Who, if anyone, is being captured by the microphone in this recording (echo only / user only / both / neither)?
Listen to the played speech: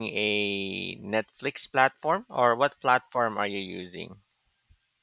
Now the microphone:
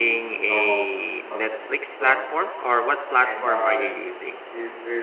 both